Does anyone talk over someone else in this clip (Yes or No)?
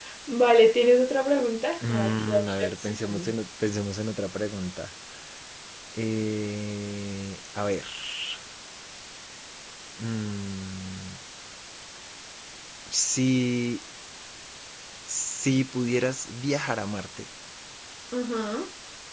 Yes